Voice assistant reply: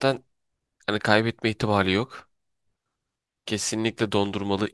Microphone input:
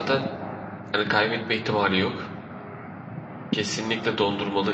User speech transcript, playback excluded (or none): none